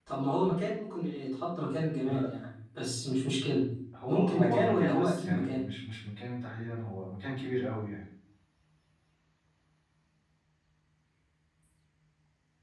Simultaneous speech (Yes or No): Yes